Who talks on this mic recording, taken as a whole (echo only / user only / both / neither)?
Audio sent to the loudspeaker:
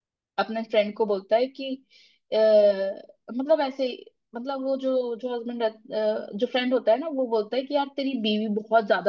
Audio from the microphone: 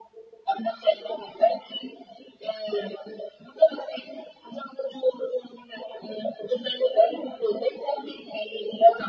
echo only